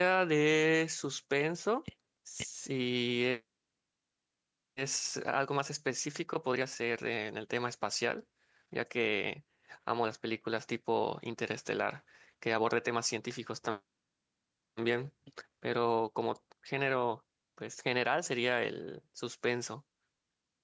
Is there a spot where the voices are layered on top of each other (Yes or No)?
No